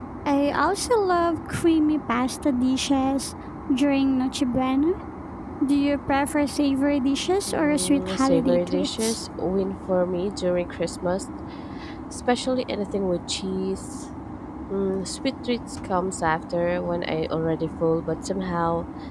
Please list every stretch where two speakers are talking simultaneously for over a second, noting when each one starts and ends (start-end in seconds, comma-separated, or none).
7.6-9.2